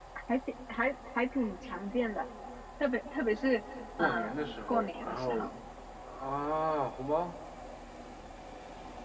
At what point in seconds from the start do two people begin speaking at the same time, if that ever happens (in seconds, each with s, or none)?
3.9 s